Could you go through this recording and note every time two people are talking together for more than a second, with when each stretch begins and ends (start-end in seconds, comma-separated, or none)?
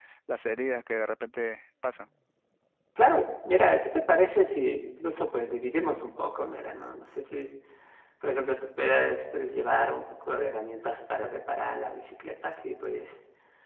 none